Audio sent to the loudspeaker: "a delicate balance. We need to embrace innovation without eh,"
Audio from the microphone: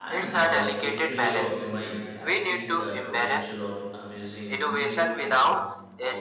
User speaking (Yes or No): Yes